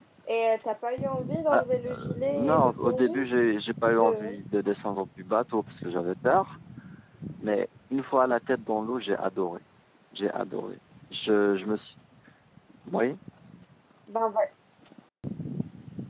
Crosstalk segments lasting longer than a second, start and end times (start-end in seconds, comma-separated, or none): 1.5-3.1